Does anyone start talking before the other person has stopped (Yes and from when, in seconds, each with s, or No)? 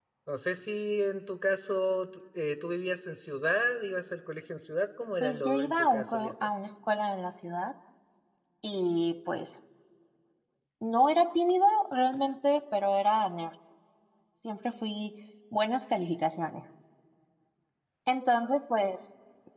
Yes, from 5.2 s